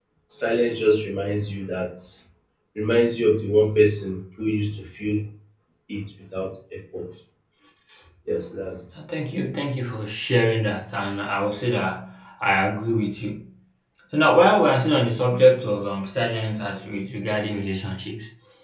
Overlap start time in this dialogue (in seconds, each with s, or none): none